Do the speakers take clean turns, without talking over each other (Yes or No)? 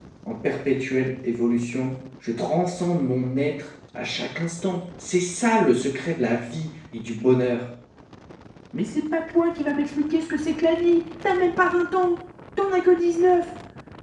Yes